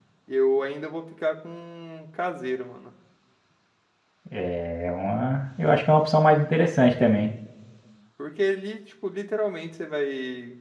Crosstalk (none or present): none